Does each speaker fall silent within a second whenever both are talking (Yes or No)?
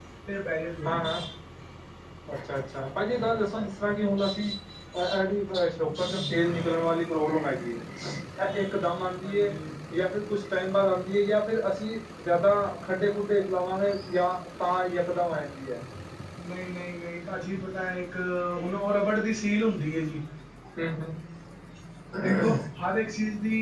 Yes